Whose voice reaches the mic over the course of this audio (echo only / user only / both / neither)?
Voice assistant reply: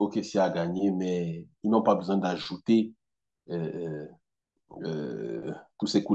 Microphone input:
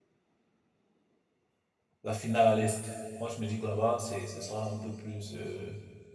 user only